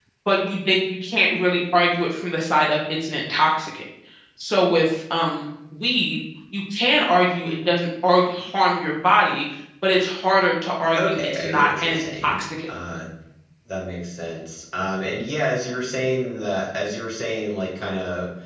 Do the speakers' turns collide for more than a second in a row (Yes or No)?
Yes